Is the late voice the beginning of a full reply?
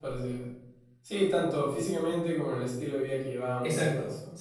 Yes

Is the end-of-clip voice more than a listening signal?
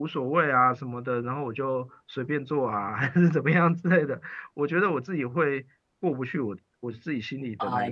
Yes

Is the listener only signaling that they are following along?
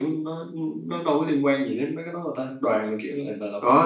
No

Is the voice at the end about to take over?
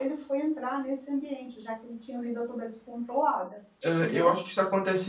Yes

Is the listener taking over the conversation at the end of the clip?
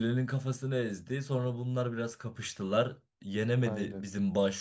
No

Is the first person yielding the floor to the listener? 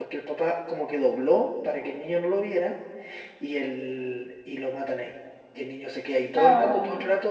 No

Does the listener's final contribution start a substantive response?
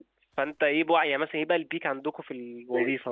Yes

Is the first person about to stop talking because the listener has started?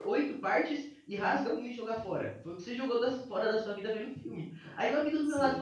No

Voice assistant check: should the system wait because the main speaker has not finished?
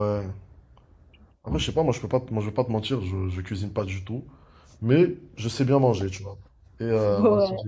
Yes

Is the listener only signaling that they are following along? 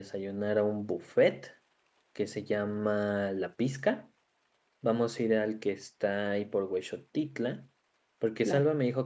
Yes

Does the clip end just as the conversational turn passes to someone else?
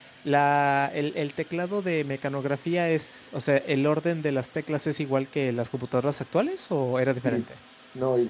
Yes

